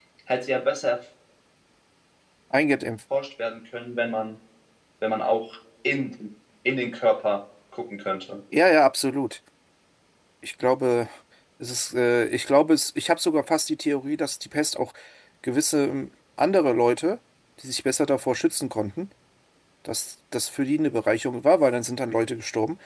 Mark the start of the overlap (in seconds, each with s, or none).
none